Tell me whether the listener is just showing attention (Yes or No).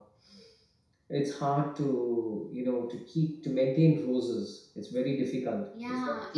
No